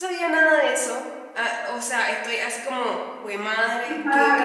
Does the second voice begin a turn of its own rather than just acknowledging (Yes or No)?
Yes